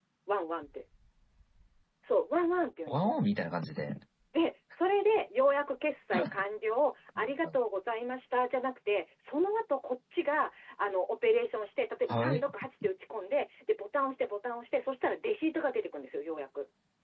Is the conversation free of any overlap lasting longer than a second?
Yes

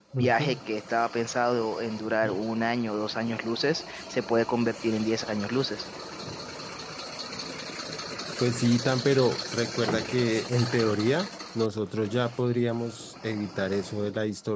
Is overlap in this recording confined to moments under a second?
Yes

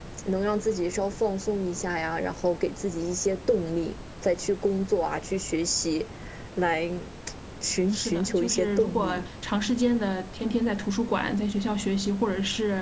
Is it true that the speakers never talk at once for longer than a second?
No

